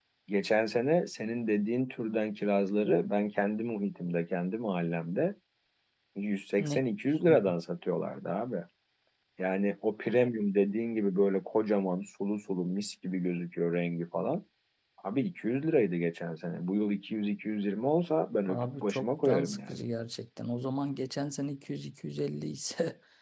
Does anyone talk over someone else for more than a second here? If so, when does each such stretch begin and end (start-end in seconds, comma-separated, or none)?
18.5-19.8